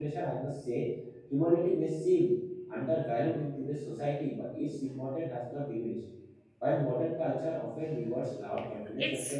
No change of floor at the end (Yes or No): Yes